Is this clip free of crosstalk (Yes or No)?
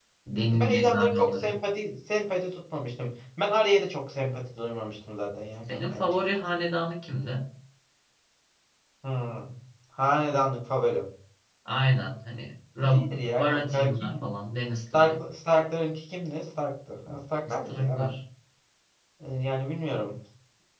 No